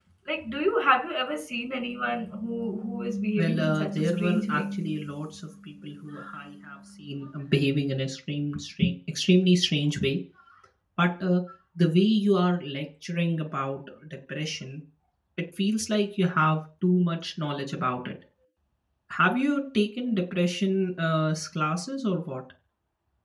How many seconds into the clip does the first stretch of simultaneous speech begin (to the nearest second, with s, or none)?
3 s